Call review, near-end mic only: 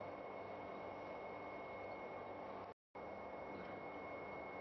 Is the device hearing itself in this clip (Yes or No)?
No